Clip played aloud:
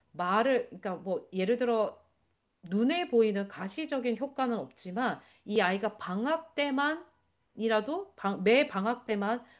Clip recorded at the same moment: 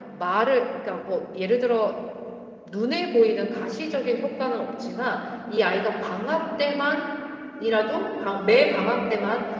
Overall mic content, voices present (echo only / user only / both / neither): echo only